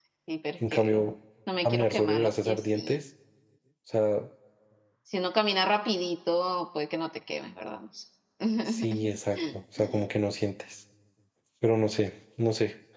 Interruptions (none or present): present